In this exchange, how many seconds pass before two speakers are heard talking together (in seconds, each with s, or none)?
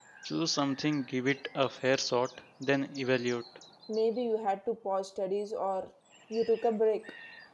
none